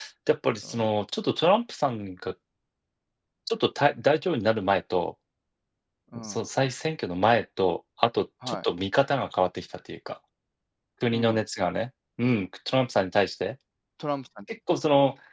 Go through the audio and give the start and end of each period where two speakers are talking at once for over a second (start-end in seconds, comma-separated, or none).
none